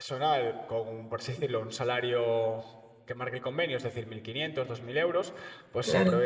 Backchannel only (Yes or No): Yes